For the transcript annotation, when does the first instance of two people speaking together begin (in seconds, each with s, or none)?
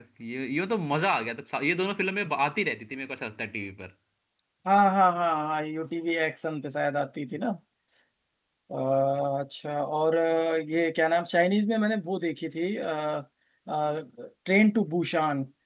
none